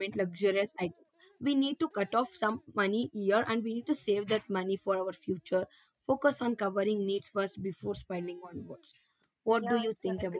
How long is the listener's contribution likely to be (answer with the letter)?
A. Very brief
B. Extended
B